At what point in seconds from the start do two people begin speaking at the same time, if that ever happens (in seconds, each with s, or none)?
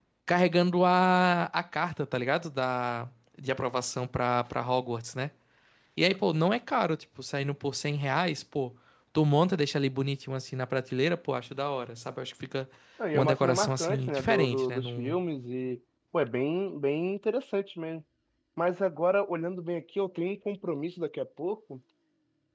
13.1 s